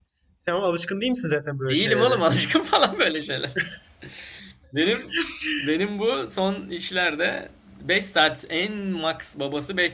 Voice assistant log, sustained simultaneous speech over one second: none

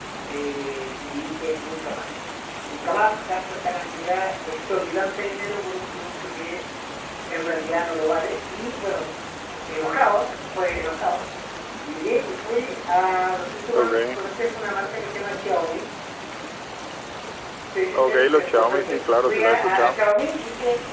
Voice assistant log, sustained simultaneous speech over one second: present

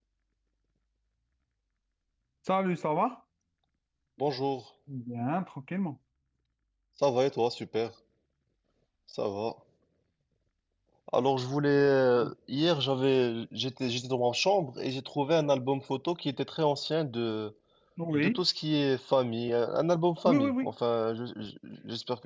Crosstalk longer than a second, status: none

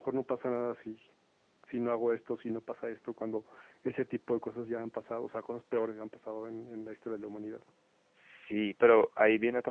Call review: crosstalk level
none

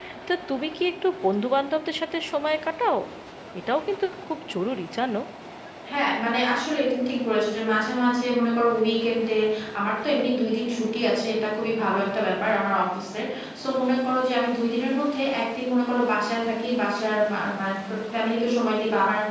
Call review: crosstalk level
none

